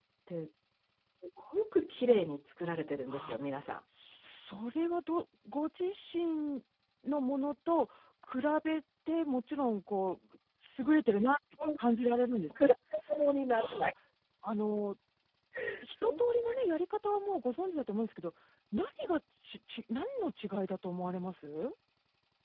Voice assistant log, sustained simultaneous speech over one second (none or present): none